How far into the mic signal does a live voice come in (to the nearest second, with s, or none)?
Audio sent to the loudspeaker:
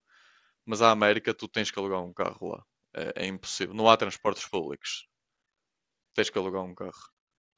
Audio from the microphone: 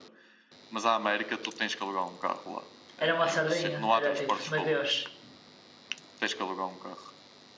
3 s